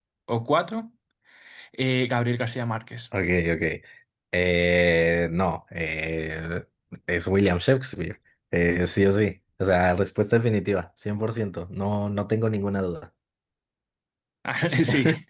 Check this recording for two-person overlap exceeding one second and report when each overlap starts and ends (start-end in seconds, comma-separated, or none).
none